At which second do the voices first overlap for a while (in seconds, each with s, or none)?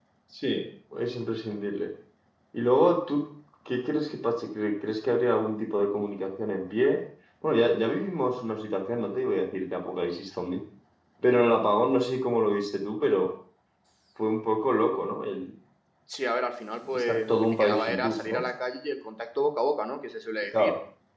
16.9 s